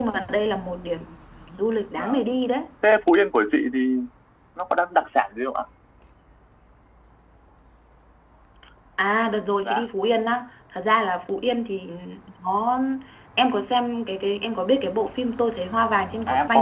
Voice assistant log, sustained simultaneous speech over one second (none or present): none